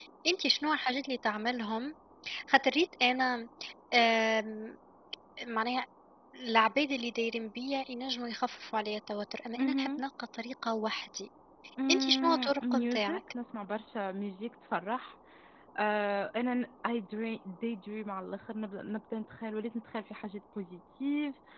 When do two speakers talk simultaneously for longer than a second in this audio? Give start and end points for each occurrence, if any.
11.9-13.2

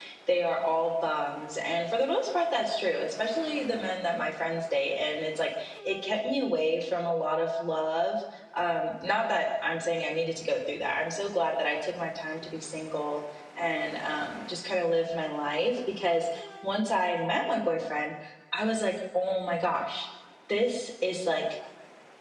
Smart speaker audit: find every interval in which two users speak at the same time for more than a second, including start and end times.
none

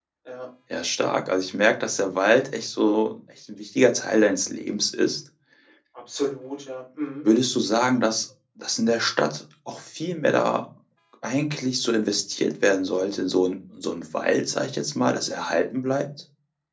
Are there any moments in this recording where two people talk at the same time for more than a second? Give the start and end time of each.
none

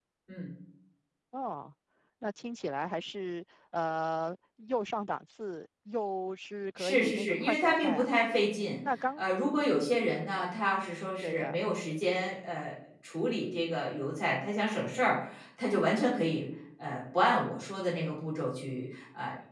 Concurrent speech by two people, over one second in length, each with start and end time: 6.8-8.1

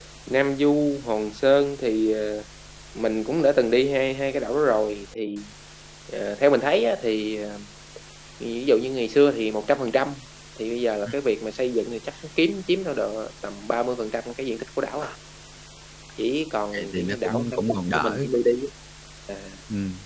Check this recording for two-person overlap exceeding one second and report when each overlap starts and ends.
16.7-18.2

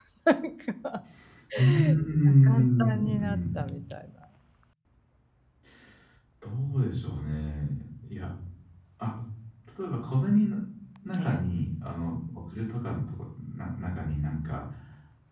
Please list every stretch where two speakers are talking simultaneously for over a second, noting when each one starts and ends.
2.4-3.7

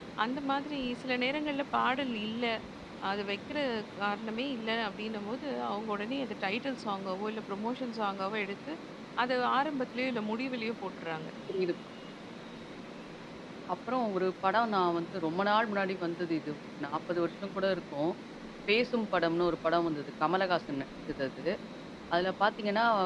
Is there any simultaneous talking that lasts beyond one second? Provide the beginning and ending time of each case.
none

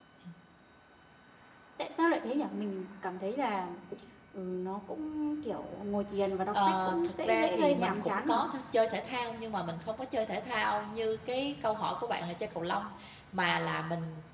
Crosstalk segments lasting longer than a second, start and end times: 6.5-8.4

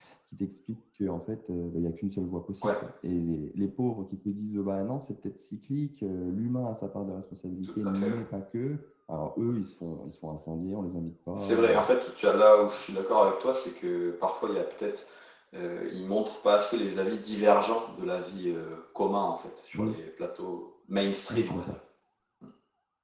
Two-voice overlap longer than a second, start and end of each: none

